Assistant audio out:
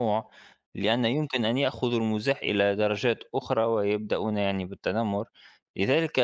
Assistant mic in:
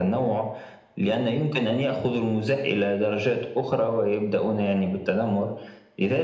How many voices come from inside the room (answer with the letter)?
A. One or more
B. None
B